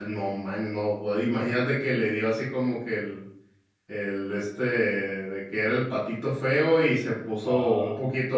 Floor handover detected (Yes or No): No